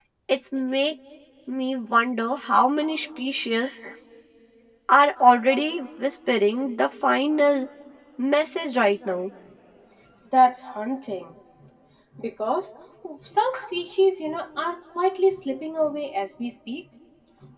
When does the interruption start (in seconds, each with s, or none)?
none